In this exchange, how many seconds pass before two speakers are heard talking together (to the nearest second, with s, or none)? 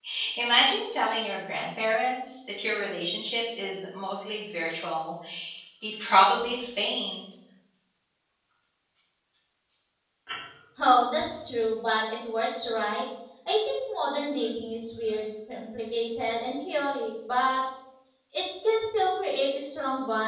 none